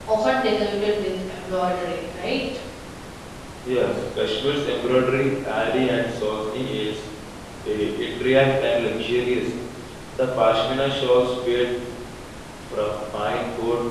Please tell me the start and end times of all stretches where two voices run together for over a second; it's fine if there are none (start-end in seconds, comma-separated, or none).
none